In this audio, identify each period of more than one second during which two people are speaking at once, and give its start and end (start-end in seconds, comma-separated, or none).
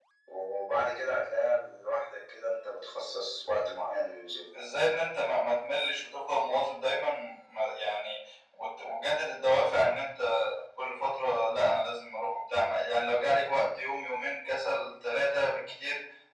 none